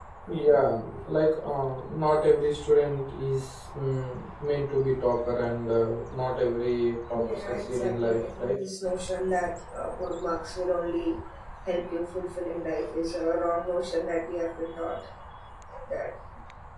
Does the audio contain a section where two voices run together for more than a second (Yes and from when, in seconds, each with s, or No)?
Yes, from 7.1 s